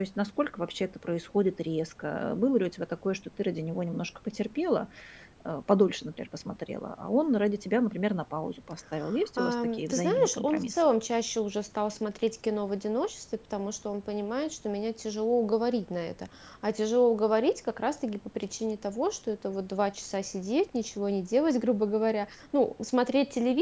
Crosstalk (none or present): present